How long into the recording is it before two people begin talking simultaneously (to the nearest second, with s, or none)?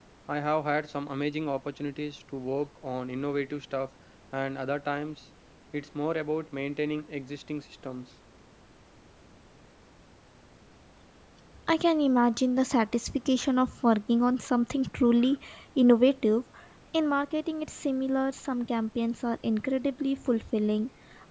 none